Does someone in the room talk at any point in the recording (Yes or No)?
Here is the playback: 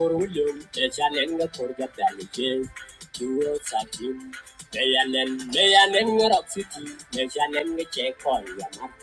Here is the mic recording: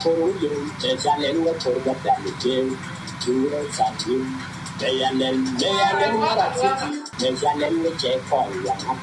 Yes